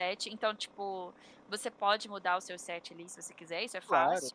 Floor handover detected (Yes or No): Yes